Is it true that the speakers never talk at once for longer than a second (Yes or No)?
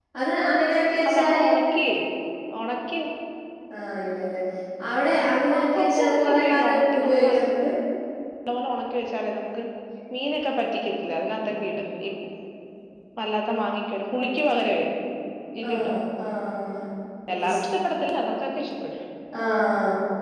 No